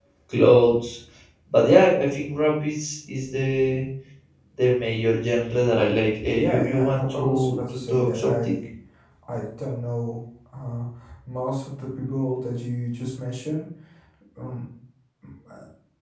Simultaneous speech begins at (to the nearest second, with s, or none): 6 s